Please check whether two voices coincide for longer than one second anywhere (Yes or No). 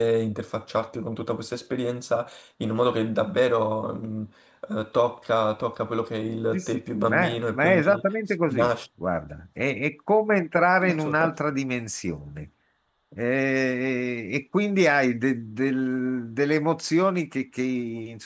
Yes